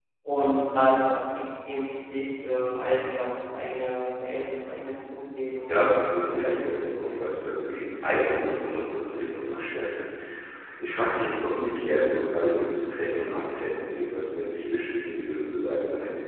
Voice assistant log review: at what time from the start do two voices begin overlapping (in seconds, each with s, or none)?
5.7 s